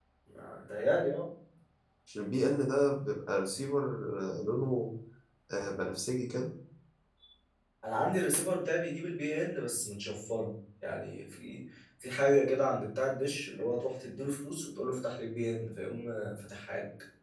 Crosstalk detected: No

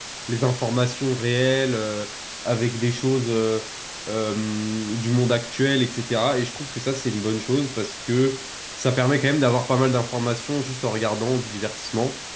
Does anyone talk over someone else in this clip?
No

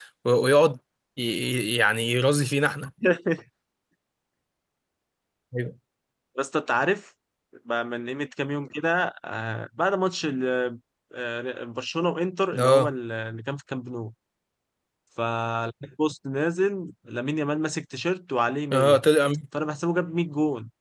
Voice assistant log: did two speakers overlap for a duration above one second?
No

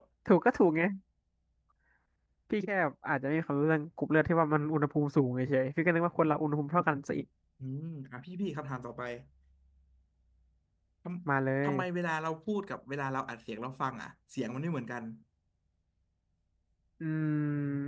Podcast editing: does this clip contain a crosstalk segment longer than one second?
No

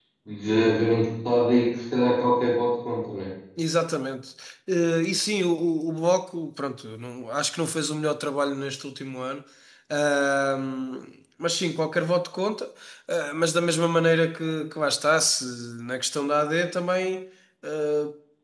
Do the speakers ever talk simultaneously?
No

